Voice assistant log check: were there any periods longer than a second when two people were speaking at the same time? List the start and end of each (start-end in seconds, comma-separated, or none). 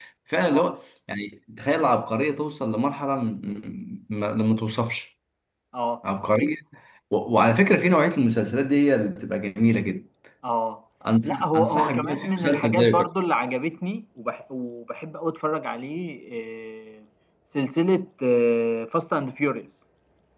11.2-12.9